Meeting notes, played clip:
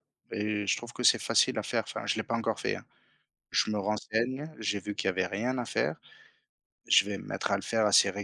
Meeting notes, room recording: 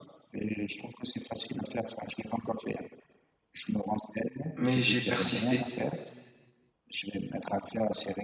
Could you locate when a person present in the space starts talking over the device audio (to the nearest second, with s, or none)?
5 s